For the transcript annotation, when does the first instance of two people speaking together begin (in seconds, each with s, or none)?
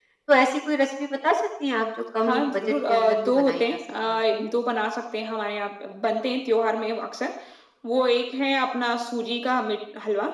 2.2 s